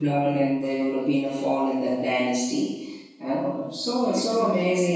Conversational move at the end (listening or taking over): listening